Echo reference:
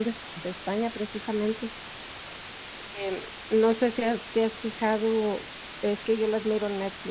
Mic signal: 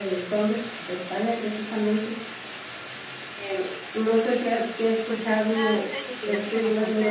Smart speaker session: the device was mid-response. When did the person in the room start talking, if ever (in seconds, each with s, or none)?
5.0 s